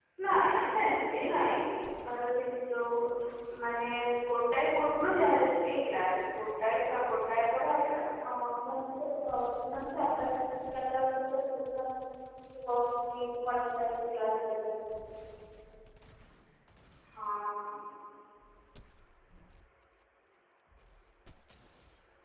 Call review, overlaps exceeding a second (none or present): none